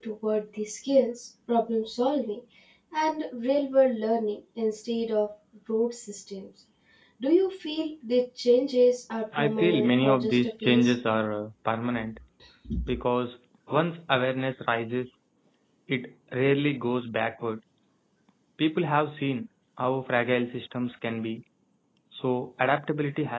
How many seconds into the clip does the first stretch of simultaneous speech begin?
9.3 s

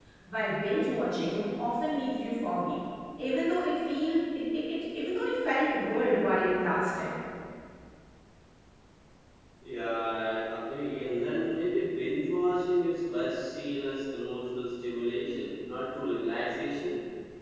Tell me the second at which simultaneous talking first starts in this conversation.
none

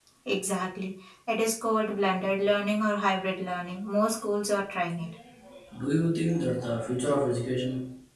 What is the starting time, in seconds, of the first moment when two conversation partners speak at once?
none

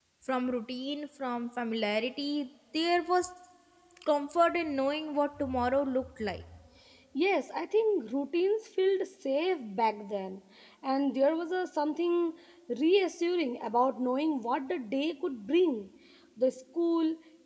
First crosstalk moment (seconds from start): none

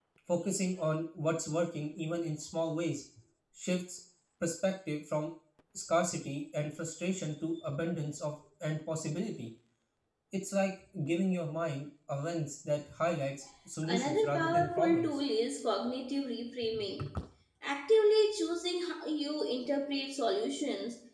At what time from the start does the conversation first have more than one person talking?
13.8 s

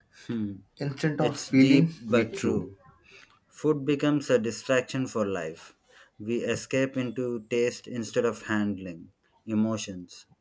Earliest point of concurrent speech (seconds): 1.2 s

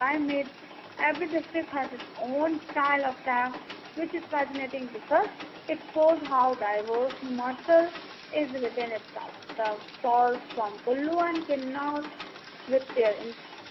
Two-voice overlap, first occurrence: none

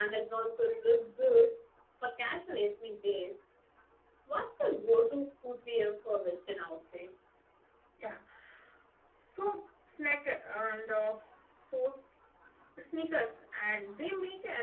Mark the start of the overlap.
none

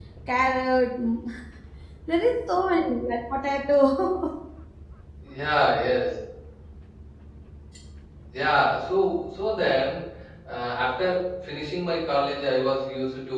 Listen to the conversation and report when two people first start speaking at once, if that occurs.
none

